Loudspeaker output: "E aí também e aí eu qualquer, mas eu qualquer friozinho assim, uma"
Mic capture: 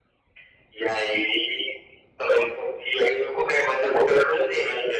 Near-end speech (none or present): none